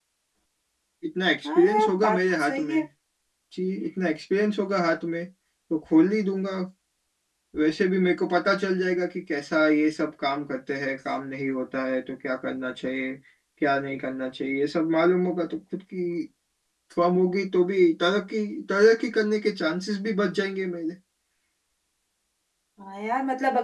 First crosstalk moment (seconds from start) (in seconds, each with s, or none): 1.6 s